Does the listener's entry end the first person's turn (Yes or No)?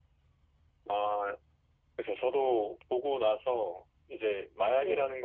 No